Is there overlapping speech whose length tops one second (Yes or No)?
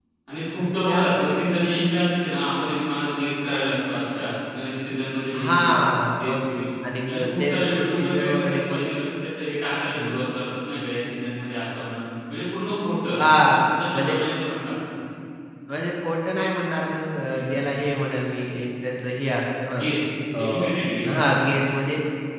Yes